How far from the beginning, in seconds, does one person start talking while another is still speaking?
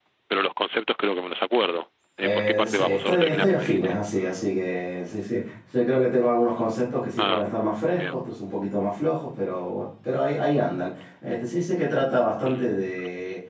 2.2 s

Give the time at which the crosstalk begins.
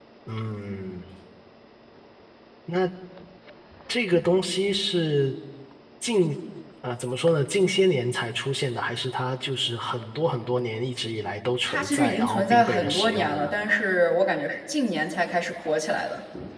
11.7 s

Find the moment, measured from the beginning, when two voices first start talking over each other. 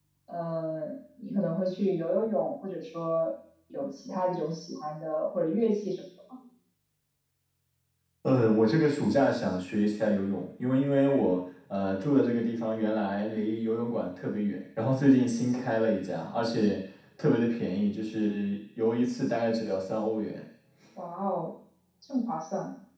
none

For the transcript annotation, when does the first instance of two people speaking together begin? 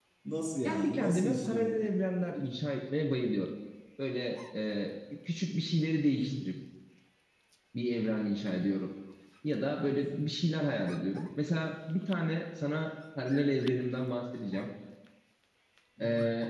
0.6 s

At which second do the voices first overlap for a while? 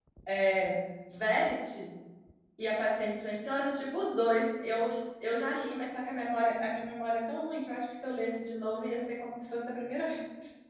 none

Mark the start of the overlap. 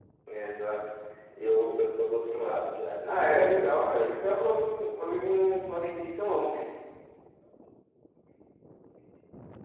3.0 s

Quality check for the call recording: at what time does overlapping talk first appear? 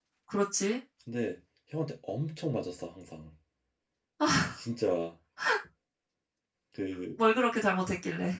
none

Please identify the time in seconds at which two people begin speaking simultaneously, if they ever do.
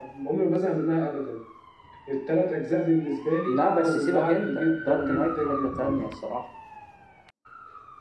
3.5 s

